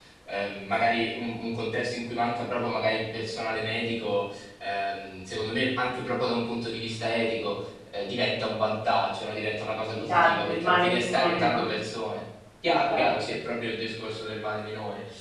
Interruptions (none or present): present